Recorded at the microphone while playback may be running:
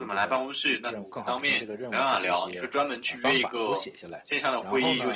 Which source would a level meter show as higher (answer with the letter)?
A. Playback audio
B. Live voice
A